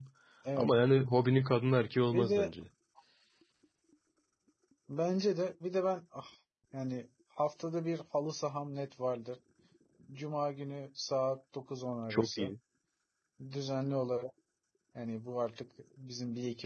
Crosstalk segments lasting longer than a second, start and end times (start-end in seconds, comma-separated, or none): none